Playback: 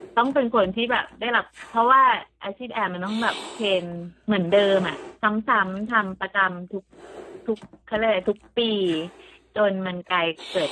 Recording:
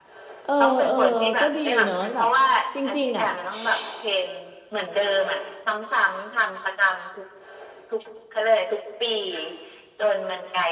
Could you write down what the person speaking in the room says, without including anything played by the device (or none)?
เออเออก็ดีเนอะแบบจริงๆอ่ะ